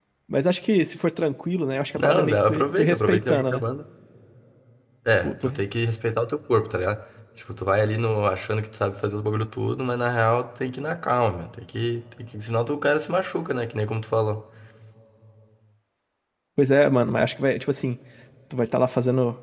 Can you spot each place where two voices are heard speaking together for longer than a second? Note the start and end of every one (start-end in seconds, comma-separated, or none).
1.9-3.6